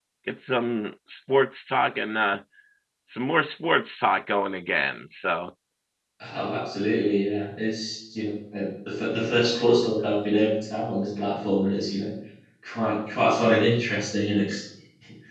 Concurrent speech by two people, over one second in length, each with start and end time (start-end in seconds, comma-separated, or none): none